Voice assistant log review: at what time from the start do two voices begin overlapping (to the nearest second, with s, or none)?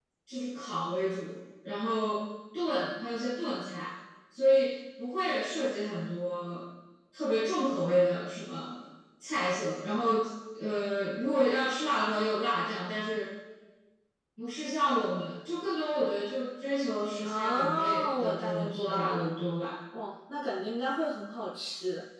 17 s